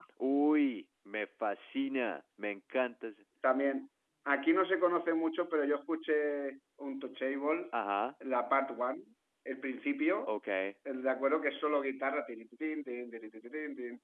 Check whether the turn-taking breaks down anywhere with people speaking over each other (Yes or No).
No